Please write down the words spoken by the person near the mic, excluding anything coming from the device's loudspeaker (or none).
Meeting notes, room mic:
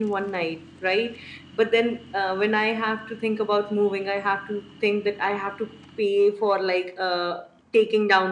none